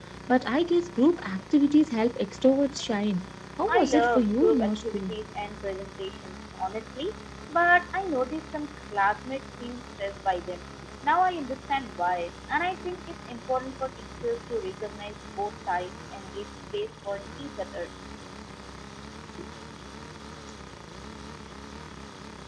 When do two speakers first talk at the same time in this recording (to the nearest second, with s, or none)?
4 s